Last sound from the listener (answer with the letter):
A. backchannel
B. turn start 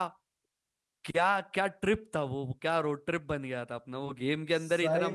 B